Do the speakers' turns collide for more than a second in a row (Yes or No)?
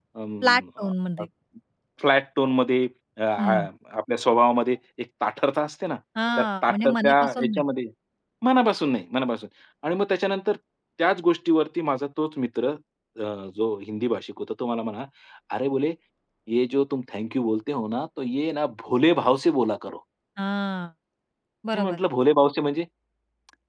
Yes